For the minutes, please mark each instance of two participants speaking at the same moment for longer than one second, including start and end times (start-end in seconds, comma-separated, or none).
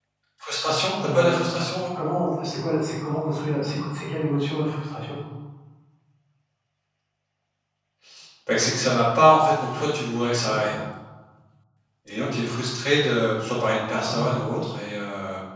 none